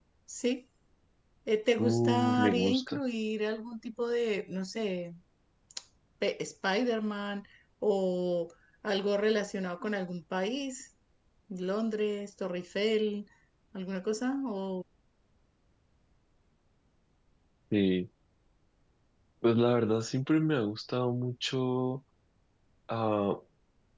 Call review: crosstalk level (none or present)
present